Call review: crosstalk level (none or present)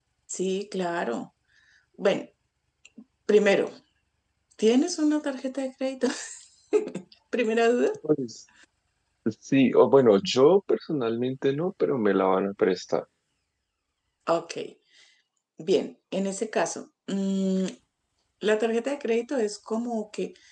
none